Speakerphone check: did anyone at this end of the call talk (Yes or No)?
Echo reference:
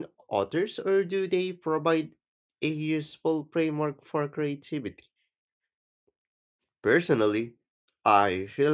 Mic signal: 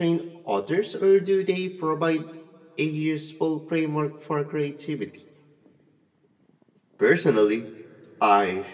No